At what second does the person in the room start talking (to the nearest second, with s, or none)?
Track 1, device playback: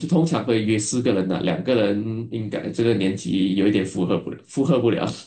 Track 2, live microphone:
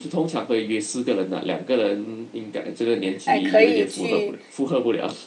3 s